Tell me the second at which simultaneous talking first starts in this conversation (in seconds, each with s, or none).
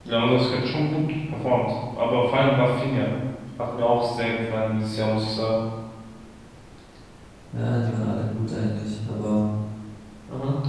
none